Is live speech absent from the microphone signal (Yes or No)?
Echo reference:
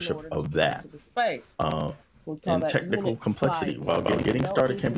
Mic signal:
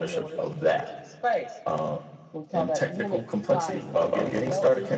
Yes